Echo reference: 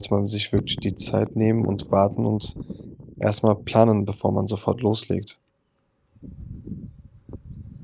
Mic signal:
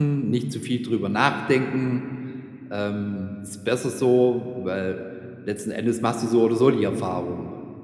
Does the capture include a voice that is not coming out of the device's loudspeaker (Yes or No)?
Yes